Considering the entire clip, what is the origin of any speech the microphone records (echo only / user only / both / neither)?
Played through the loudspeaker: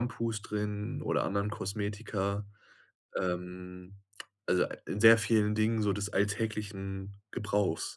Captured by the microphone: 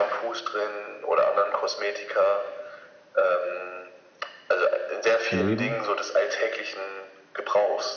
both